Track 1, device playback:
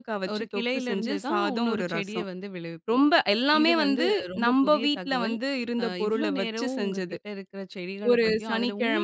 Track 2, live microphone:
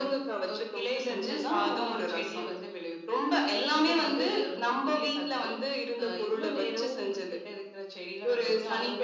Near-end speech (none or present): none